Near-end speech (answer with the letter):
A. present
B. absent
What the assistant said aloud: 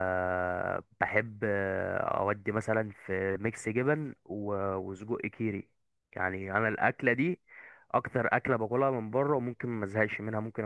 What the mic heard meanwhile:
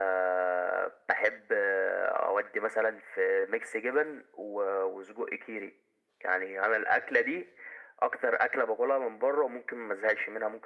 B